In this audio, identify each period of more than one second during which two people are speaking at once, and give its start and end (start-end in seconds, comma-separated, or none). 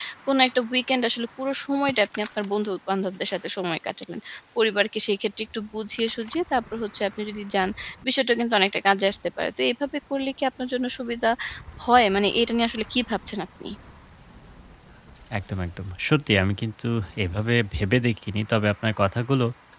none